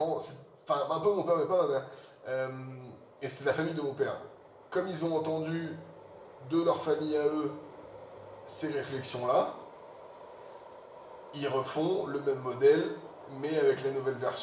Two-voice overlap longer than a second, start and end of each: none

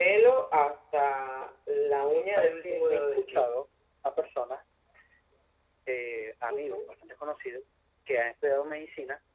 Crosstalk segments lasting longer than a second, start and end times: 2.3-3.5

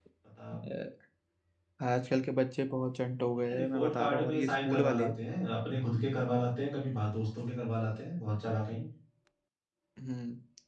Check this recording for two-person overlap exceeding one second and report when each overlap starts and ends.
3.5-5.1

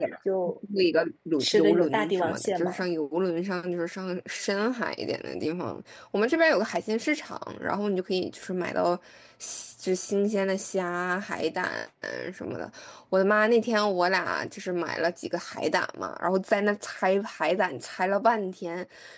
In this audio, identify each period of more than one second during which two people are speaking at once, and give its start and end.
1.4-2.8

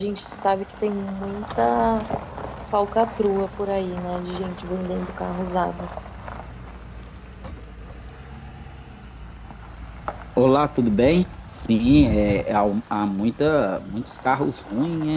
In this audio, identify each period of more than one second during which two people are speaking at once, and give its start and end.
none

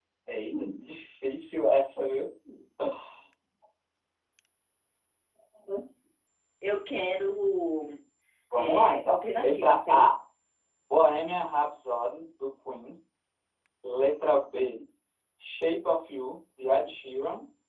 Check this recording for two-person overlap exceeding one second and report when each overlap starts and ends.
8.5-10.1

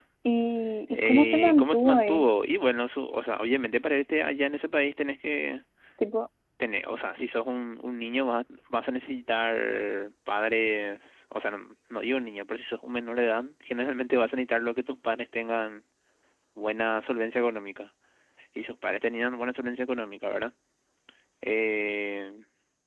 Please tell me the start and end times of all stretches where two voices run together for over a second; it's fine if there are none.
0.9-2.2

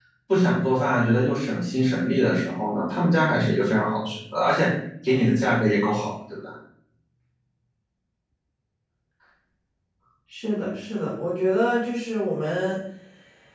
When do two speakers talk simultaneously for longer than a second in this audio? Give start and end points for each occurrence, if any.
none

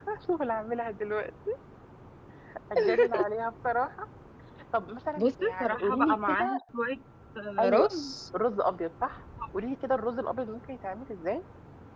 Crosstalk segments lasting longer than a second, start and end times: 5.2-6.6

